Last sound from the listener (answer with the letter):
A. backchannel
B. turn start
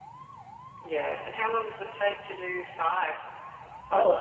B